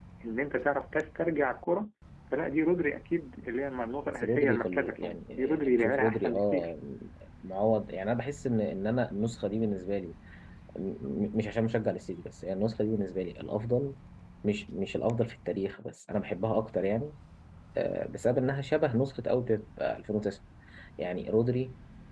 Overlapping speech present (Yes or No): Yes